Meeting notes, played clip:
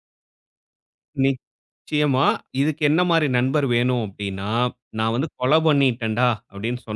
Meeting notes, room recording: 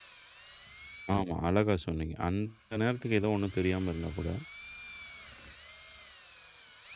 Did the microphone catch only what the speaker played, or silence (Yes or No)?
No